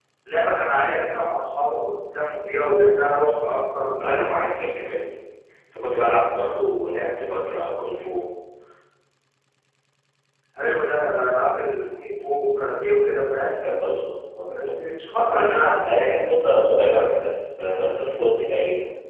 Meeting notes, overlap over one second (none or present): none